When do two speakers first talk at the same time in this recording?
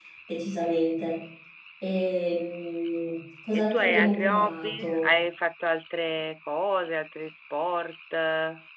3.7 s

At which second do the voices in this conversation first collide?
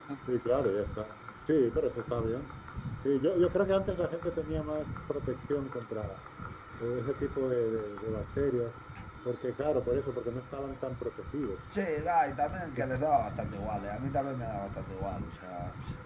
none

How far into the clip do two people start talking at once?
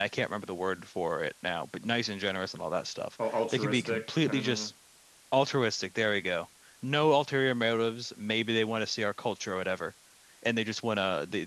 3.2 s

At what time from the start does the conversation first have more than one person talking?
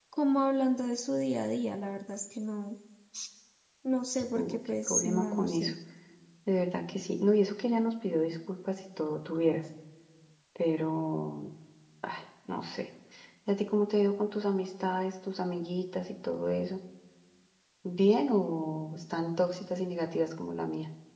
4.3 s

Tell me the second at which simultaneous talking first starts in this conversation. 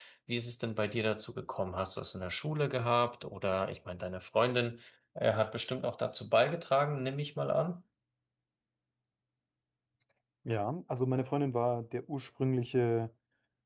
none

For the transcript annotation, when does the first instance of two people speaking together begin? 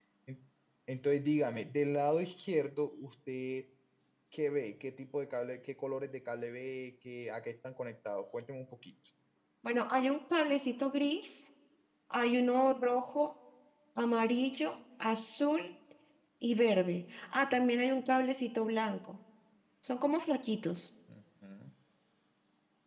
none

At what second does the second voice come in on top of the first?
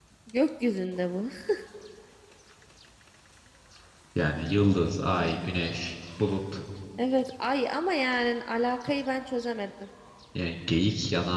none

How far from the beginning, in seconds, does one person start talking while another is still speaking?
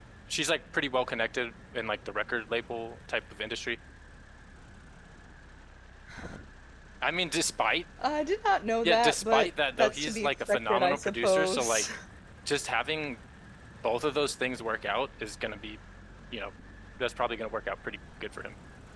8.8 s

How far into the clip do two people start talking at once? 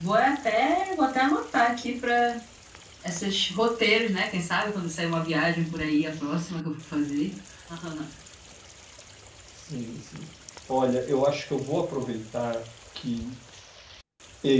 none

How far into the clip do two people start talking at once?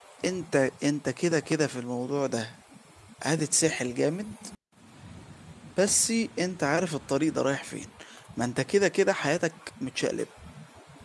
none

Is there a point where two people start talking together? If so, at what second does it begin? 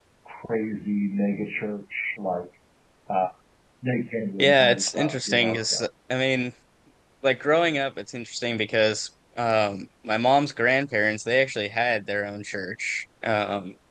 4.4 s

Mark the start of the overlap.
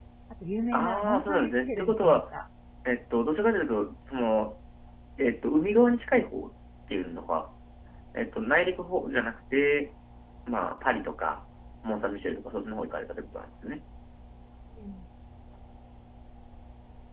0.7 s

